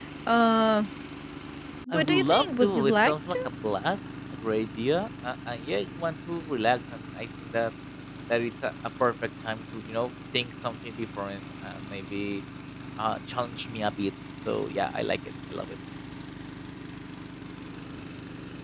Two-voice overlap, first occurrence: 1.9 s

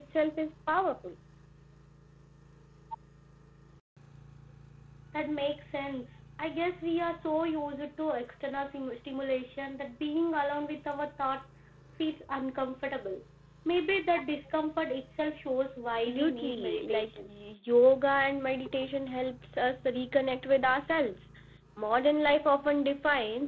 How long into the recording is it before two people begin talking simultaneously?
16.1 s

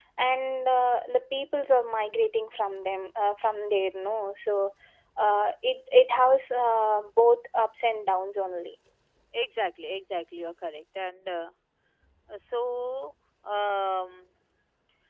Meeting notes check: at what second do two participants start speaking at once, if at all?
none

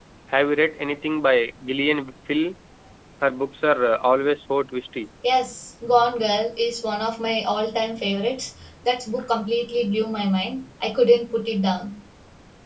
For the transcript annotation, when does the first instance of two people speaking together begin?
none

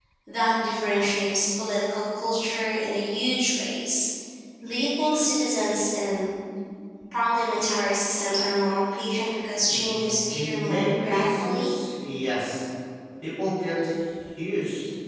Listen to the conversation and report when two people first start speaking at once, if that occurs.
9.7 s

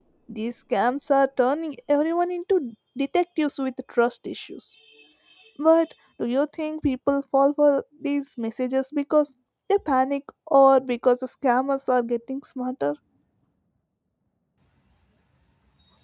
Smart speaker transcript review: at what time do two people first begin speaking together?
none

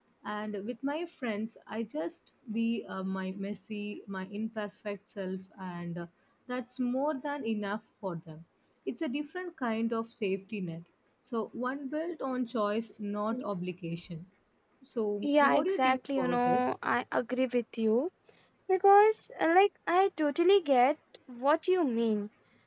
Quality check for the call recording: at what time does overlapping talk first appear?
15.2 s

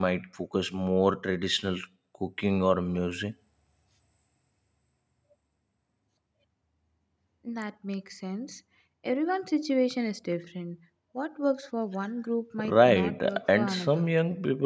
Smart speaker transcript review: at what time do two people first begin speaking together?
12.6 s

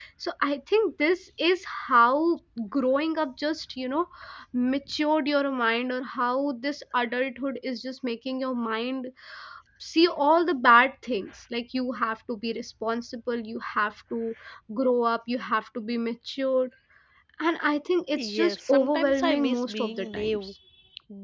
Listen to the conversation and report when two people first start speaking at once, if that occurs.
18.2 s

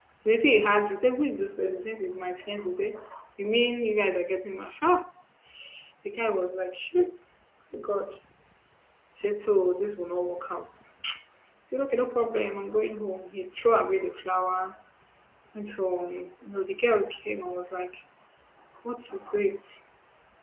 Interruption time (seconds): none

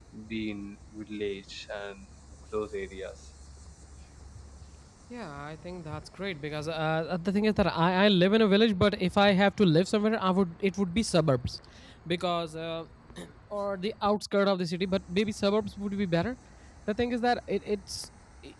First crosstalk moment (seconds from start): none

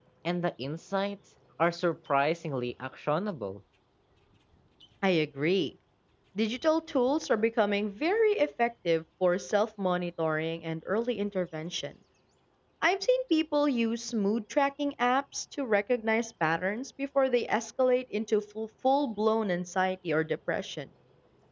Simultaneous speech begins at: none

